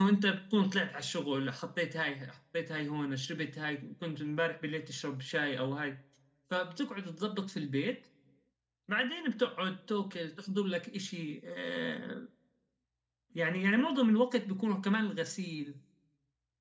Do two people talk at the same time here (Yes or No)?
No